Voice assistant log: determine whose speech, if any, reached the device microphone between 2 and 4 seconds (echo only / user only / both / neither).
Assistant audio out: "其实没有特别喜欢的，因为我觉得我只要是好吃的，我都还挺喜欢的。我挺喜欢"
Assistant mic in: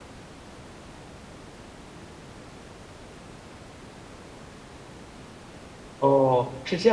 neither